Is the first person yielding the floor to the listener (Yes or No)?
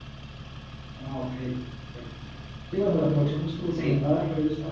No